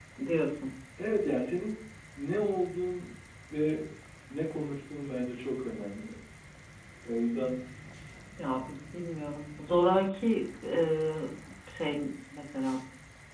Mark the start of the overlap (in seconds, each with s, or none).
none